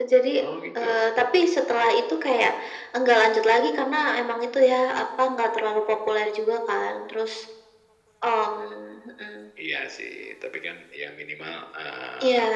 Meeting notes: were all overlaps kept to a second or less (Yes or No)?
Yes